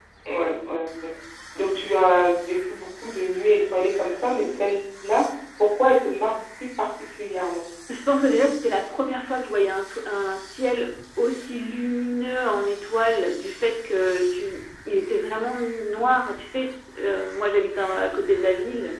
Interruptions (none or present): none